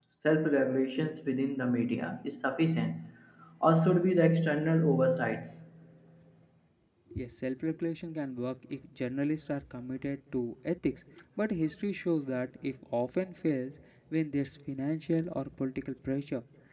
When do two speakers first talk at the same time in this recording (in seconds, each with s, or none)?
none